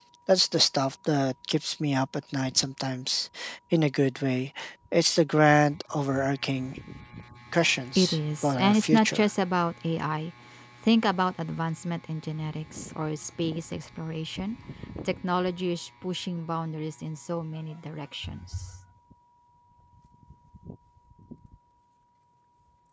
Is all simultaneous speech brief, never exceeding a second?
No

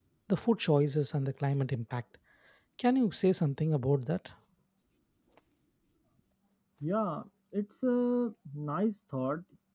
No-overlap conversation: Yes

